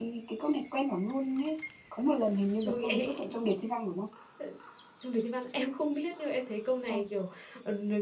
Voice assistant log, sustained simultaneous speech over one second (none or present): none